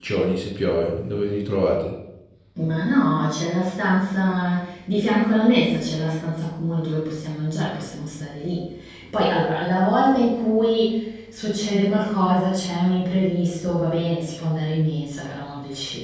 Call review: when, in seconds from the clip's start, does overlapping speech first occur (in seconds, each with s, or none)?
none